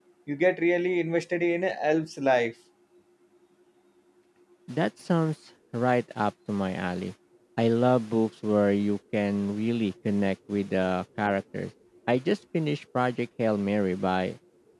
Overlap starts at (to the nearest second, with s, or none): none